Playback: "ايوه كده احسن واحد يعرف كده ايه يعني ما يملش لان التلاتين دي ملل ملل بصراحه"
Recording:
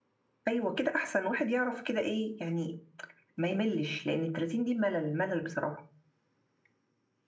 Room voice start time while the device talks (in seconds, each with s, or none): none